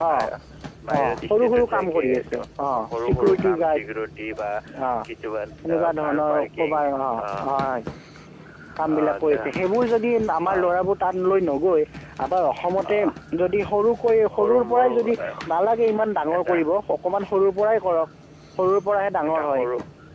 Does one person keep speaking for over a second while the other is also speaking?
Yes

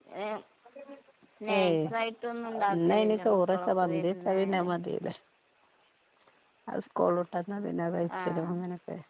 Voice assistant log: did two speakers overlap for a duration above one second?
Yes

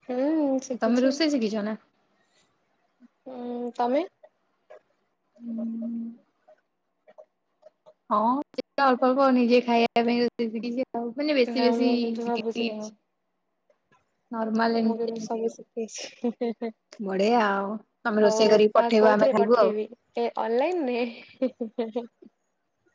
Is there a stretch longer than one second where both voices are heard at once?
Yes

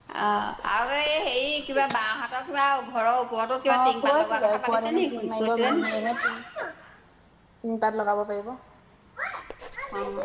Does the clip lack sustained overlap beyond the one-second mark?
No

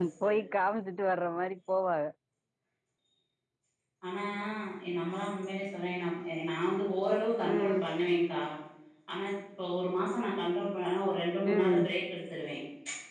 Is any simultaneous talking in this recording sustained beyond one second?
No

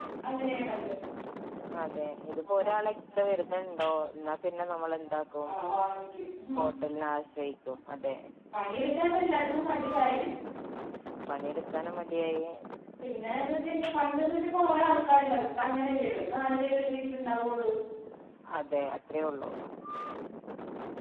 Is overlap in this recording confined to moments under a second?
Yes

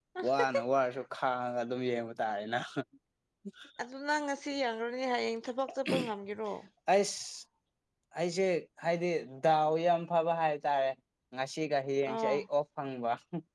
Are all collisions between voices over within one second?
Yes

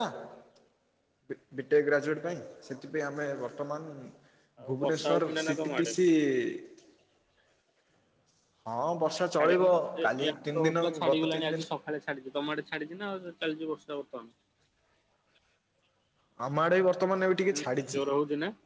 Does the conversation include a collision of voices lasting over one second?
Yes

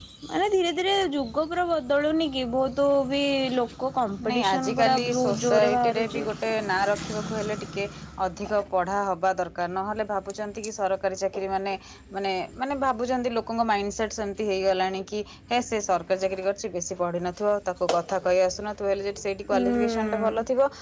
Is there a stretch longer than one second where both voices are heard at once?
Yes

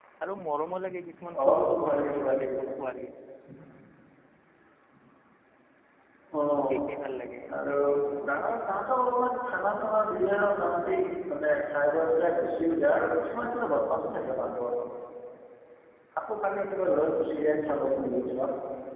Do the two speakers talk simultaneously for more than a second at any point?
Yes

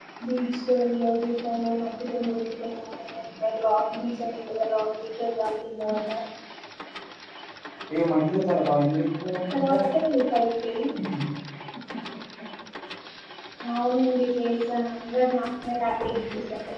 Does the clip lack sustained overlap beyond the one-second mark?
Yes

